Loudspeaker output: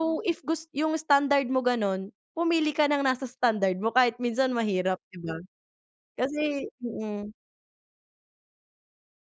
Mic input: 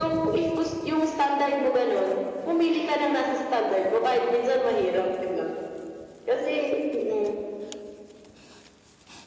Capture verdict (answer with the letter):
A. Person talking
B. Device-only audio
B